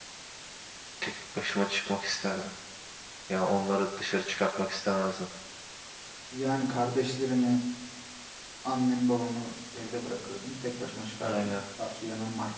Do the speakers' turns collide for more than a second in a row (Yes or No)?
No